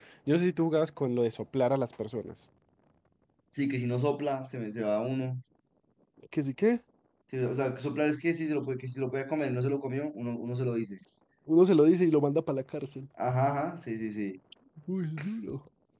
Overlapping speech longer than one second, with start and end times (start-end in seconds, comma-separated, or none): none